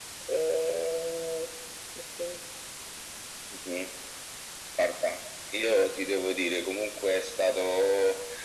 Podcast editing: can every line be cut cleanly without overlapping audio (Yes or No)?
Yes